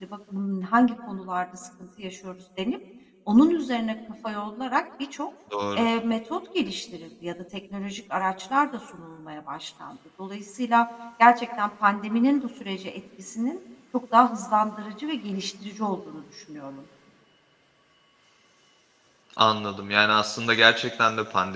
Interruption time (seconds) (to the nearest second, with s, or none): none